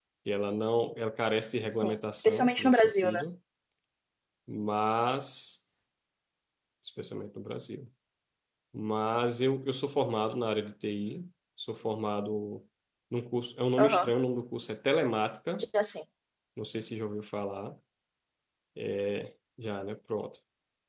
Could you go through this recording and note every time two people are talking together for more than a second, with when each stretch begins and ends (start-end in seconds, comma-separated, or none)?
1.7-3.2